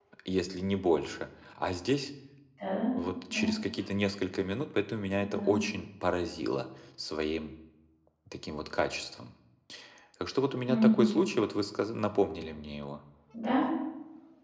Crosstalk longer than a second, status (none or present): none